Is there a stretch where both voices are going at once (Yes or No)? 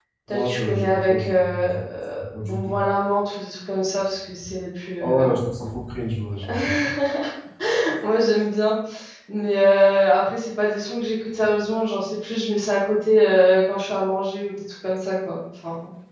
Yes